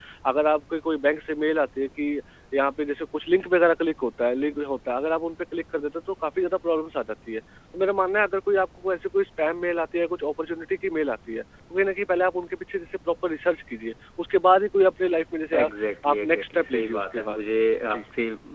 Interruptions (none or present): present